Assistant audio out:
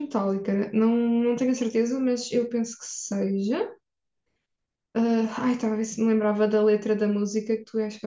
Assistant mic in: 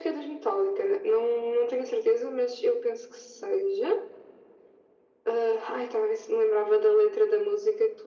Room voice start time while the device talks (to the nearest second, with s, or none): none